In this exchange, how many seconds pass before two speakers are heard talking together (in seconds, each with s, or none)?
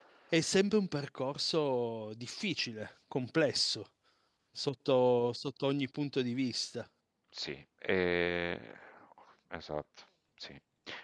none